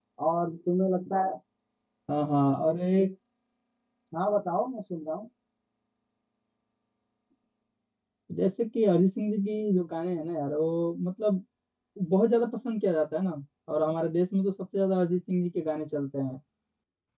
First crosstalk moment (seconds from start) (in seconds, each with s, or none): none